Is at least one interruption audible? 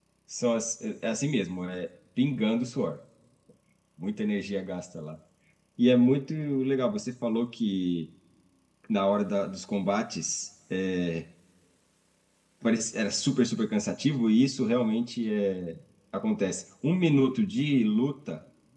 No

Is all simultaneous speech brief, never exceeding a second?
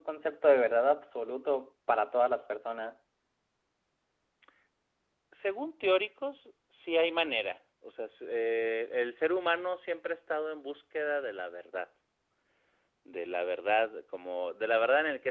Yes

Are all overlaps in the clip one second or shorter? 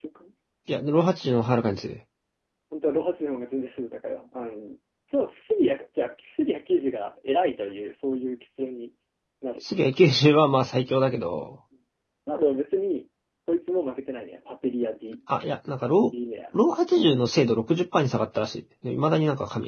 Yes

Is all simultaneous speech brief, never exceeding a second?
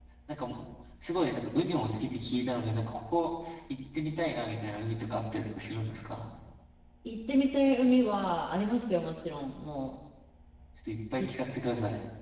Yes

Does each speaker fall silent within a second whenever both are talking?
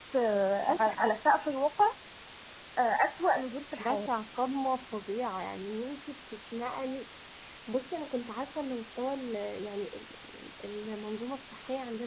Yes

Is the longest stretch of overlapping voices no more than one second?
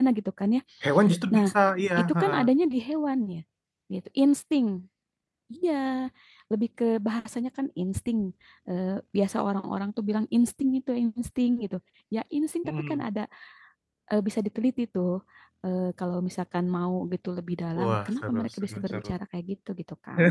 No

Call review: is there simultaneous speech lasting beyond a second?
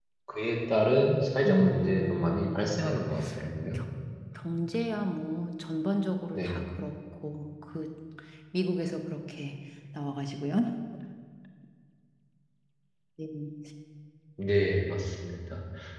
Yes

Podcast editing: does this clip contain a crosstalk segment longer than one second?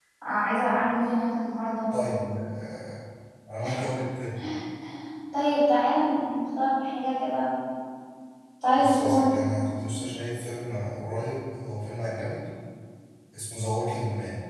No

